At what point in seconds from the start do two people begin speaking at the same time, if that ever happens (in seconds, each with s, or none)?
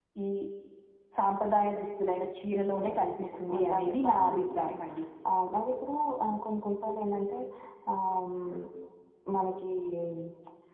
2.5 s